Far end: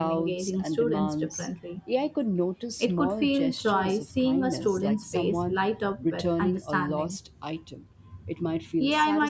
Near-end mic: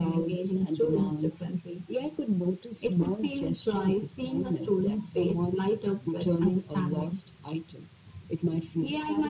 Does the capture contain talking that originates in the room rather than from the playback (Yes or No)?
No